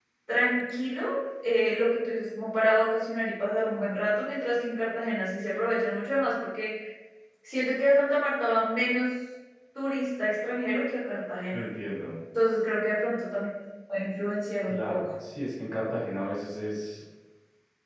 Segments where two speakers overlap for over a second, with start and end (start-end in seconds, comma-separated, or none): none